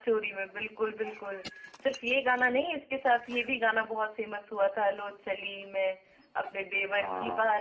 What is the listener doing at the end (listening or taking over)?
listening